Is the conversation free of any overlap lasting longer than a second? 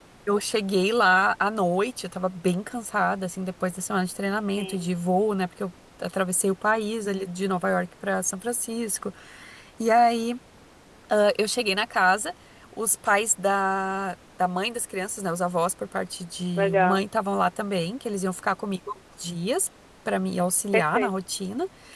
Yes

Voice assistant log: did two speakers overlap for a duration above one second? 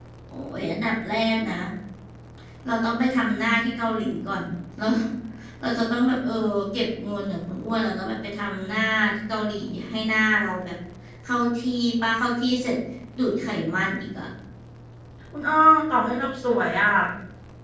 No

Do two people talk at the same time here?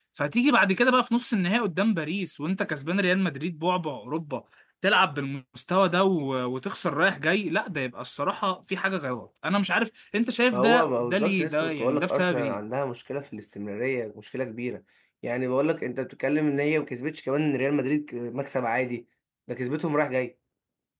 Yes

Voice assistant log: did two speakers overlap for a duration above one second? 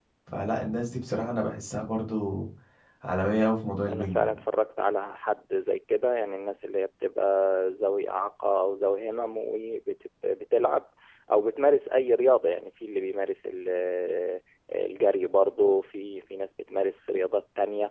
No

